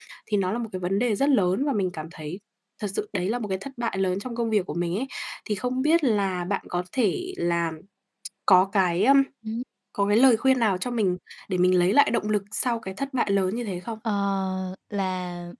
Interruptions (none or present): none